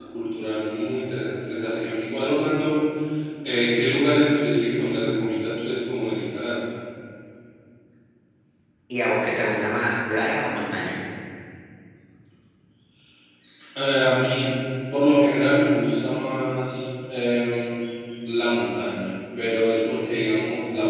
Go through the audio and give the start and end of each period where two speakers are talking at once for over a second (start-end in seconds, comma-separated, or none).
none